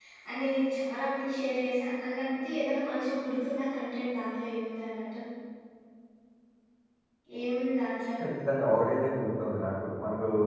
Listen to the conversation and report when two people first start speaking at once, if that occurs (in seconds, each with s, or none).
none